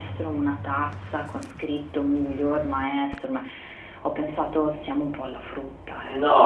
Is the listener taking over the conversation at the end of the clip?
Yes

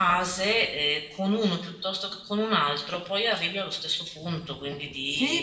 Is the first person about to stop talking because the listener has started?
Yes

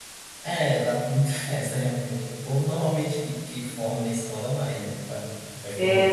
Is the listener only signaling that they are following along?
No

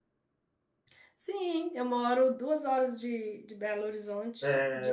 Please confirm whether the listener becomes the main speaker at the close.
Yes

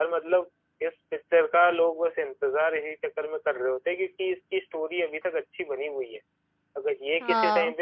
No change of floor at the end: Yes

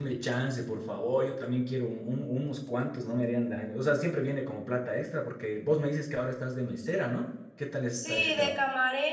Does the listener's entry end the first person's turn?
Yes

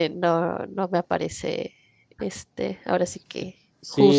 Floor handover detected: Yes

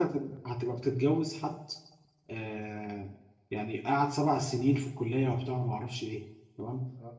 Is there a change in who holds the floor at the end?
No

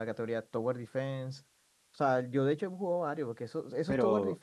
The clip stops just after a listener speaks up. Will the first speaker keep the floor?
Yes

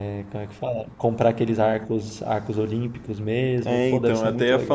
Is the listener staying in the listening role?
No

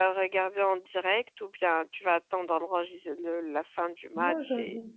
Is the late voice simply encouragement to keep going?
No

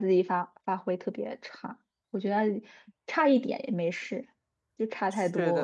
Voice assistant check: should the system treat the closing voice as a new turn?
Yes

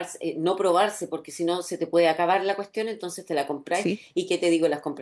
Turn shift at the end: No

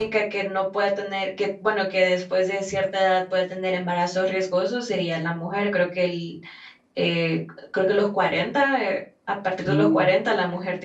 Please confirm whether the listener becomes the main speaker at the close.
No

